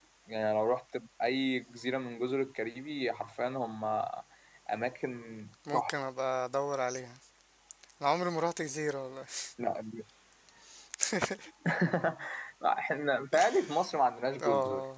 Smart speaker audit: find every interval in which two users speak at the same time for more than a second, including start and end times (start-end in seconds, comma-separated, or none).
none